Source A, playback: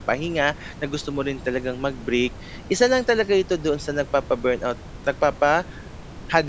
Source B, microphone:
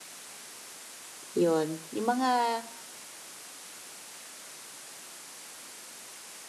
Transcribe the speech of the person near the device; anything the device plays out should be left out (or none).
'yun. Yung mga,